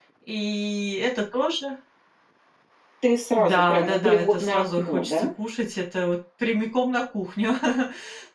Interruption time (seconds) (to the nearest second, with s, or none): 3 s